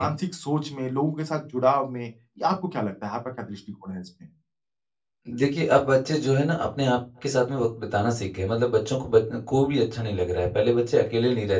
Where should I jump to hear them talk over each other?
none

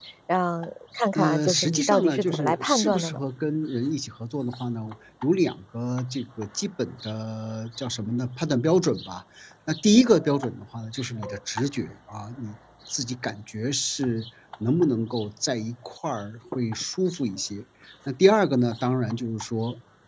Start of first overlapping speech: 1.1 s

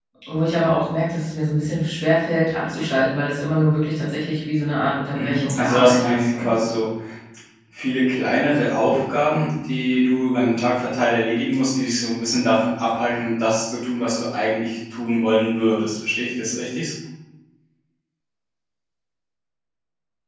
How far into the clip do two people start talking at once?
5.2 s

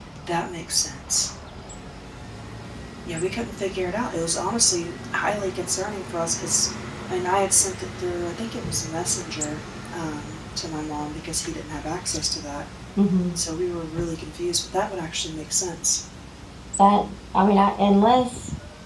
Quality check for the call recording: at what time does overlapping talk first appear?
none

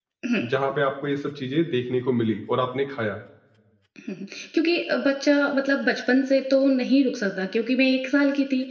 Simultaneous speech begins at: none

